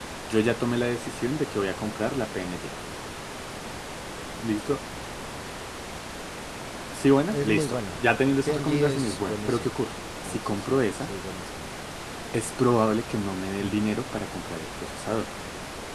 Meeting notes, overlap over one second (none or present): present